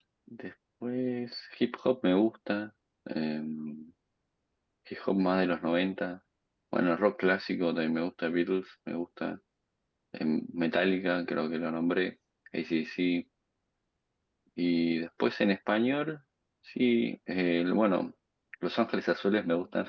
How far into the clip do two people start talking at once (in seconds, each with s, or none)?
none